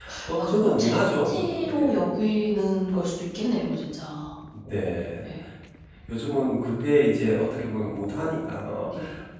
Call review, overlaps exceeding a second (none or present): present